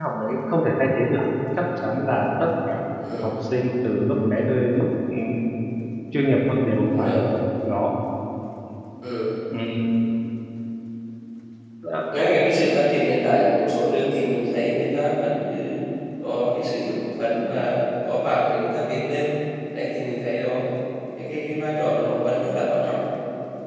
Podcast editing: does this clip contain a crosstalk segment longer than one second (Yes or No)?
No